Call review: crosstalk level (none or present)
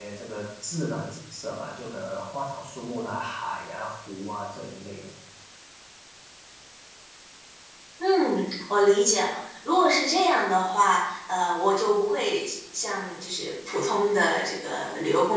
none